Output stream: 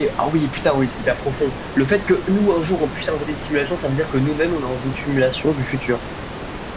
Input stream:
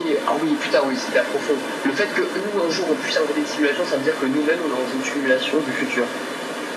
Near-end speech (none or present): none